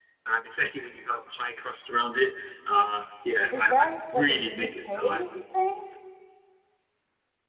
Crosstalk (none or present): present